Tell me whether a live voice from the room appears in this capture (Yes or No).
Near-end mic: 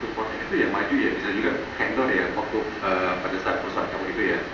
No